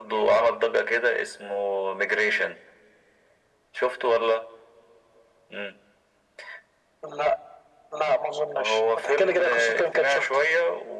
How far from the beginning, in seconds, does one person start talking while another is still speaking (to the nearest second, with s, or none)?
9 s